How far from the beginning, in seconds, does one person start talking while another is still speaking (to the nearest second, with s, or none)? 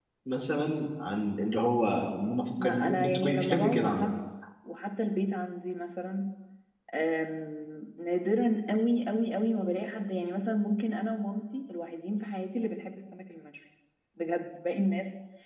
3 s